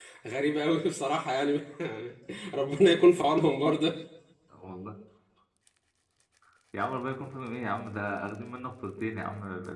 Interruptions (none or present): none